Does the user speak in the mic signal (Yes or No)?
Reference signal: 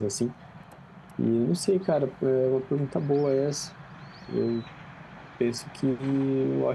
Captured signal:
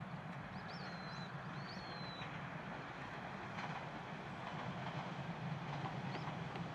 No